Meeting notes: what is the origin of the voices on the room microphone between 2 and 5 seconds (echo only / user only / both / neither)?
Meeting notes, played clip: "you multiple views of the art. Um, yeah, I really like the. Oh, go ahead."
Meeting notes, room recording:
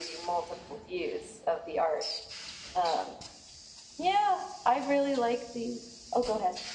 echo only